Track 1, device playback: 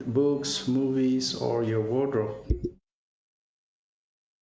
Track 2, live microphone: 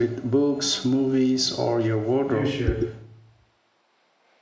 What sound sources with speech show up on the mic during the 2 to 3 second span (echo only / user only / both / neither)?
both